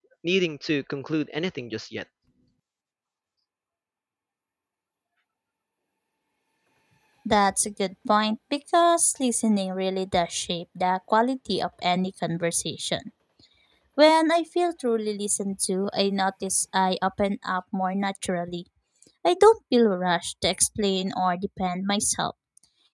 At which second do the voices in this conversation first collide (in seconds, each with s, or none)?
none